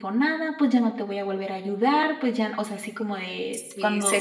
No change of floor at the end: No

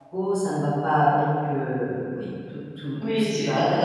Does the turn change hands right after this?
Yes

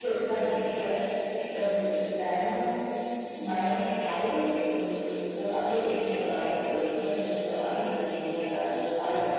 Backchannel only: Yes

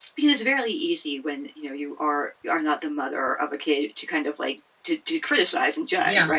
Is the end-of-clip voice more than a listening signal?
Yes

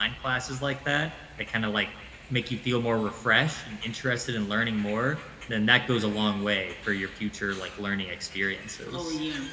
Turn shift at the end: Yes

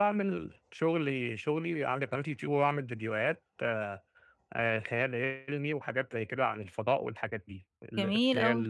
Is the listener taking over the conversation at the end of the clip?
No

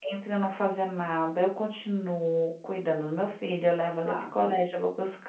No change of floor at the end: Yes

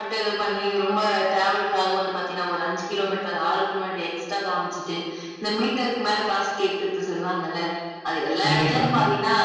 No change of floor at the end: Yes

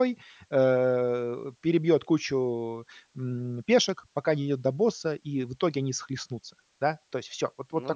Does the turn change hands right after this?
No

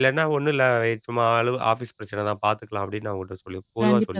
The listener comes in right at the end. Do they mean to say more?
Yes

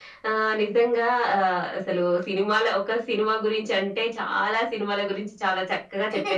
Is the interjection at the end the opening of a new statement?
No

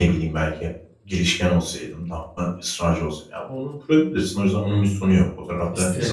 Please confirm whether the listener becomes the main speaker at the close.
No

